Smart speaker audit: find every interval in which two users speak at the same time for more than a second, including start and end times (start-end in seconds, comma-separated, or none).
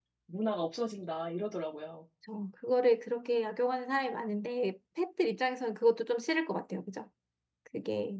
none